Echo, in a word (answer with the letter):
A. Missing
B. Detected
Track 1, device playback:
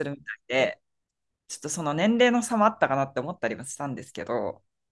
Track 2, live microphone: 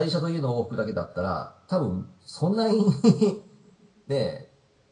A